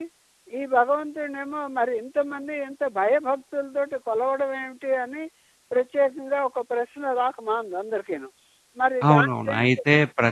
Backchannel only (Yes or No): No